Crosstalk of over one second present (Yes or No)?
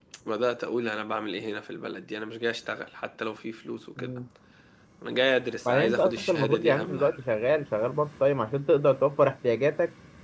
Yes